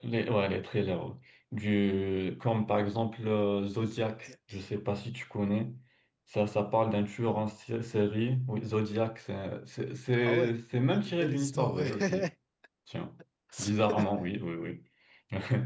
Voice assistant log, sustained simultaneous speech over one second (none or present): present